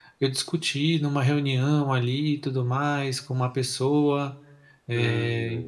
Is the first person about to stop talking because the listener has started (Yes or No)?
No